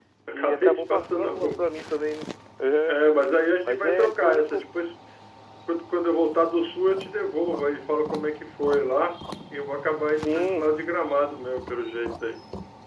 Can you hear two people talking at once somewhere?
Yes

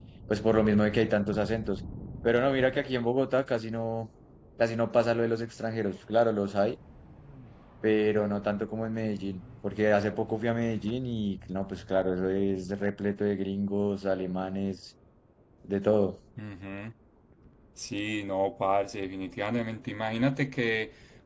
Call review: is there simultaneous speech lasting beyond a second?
No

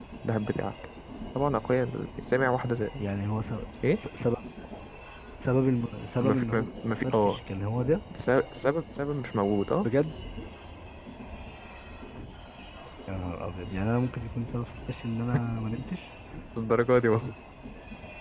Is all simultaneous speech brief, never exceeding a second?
No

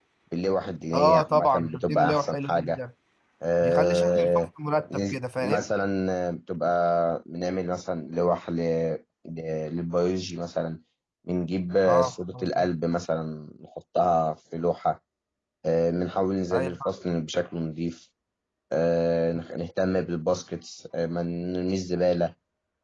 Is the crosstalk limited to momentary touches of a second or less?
No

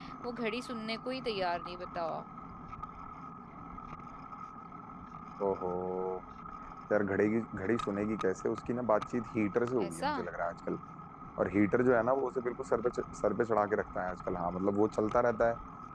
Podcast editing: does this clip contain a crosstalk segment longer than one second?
No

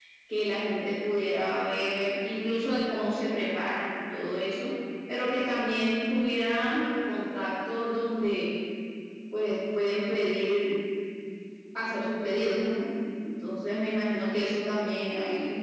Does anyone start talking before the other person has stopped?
No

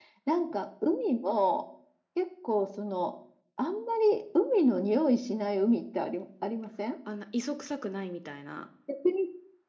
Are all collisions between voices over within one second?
Yes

